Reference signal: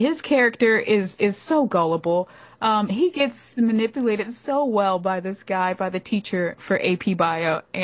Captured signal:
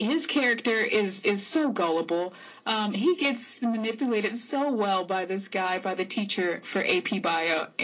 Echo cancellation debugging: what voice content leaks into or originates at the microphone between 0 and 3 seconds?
echo only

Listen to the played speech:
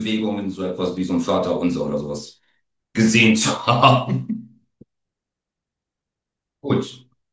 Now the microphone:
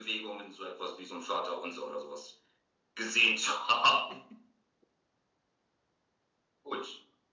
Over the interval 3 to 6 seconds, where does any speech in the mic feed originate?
echo only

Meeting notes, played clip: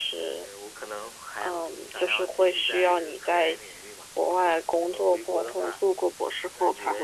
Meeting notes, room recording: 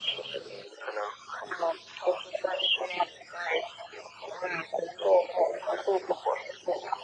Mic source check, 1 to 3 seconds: echo only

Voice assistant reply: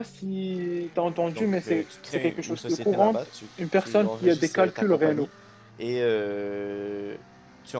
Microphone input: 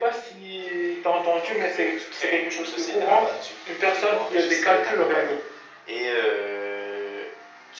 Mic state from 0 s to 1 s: echo only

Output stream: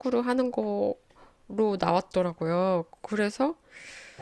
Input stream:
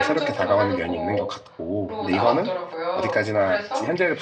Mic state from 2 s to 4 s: both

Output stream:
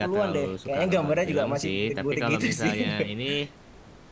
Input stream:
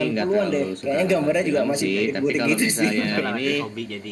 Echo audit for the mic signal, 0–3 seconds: both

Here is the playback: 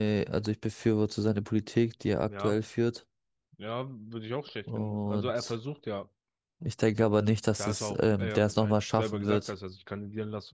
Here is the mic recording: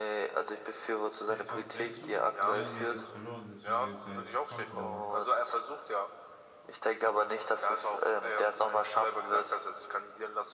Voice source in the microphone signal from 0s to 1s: echo only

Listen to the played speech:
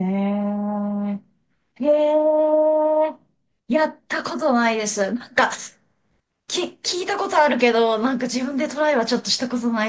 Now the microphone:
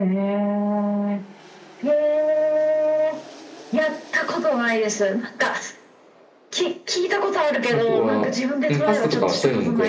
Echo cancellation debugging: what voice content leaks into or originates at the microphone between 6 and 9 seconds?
both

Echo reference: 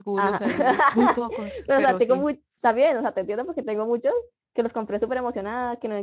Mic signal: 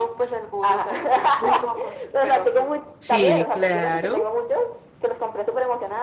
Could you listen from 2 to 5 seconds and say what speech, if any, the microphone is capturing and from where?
both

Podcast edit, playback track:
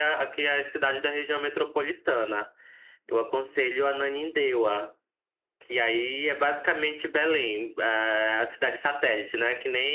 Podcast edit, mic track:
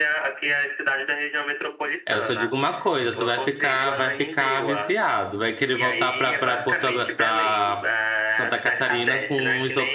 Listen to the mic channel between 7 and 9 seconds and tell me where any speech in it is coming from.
both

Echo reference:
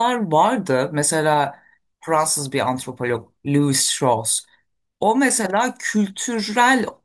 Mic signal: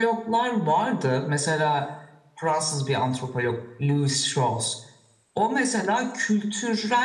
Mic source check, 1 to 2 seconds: echo only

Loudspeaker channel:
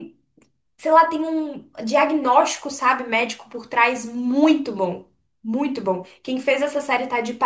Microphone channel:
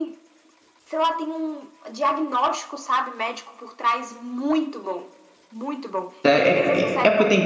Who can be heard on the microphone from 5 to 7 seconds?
both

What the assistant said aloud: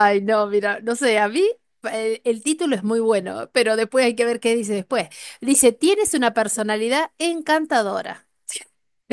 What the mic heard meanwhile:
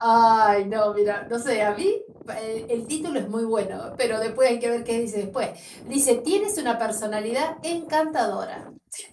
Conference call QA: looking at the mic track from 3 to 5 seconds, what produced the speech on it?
echo only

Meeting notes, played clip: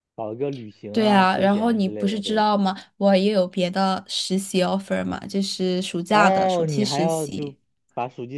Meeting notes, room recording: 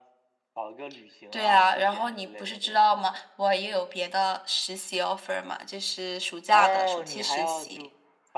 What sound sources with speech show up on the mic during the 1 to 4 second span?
echo only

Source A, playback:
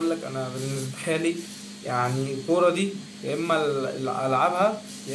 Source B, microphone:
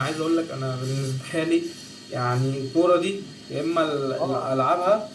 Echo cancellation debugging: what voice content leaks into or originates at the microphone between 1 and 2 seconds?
echo only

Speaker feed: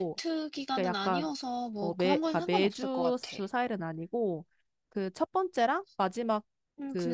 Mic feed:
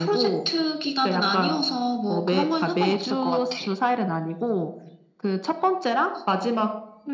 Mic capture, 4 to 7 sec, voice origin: echo only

